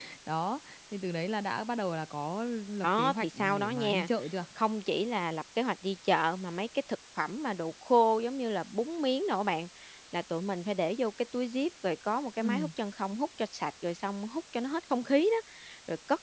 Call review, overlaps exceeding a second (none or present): present